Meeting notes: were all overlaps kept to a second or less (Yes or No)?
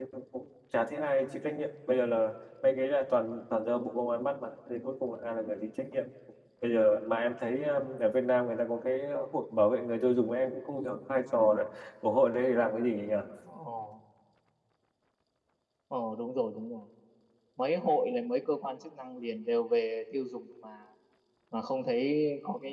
Yes